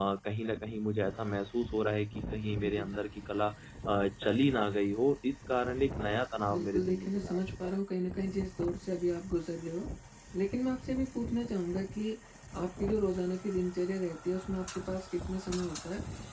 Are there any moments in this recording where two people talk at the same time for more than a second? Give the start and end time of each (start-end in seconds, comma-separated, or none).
6.5-7.7